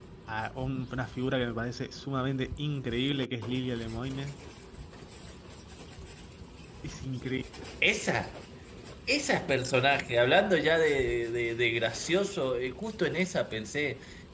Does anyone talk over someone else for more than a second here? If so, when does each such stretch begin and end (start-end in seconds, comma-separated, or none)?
none